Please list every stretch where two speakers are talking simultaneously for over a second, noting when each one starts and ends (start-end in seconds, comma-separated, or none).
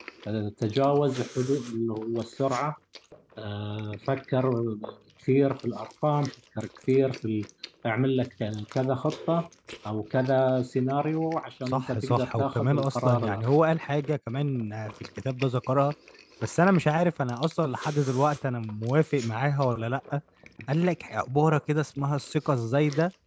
11.7-13.4